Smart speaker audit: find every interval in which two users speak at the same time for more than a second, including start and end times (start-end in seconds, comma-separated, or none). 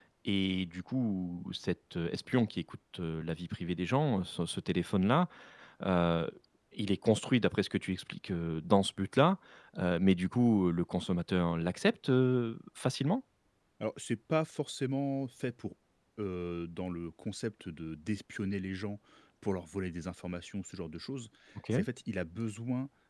none